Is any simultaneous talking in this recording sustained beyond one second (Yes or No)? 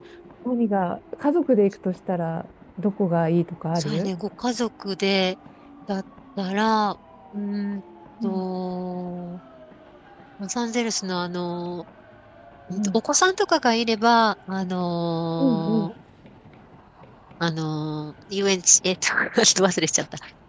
No